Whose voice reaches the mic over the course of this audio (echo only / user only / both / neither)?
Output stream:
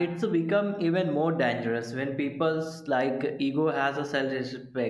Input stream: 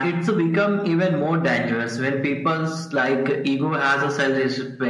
echo only